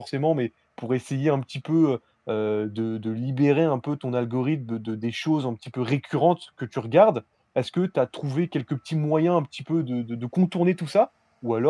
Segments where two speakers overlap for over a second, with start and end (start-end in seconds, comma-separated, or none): none